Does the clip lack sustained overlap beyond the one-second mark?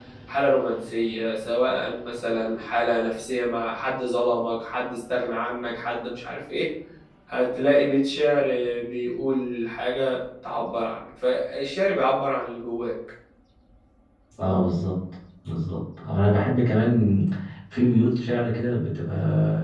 Yes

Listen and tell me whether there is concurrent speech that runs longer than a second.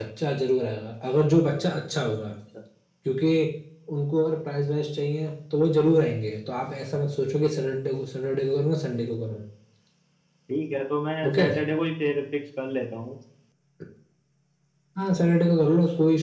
No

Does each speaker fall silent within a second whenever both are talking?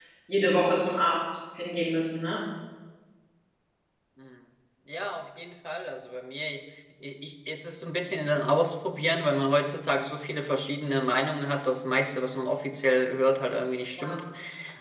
Yes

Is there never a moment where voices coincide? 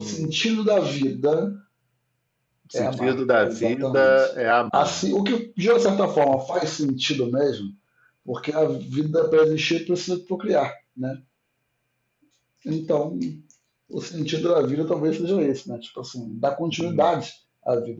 No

